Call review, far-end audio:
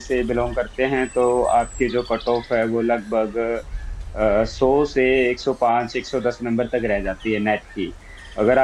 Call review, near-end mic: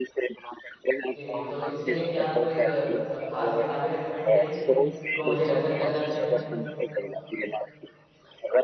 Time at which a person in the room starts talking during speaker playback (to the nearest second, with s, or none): 1 s